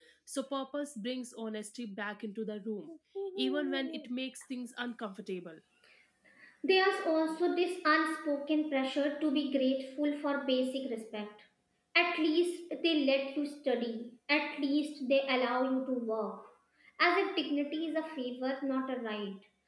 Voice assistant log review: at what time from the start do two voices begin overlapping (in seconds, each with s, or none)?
none